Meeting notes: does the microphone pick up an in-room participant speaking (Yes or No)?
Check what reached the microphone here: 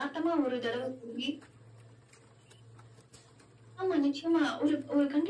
No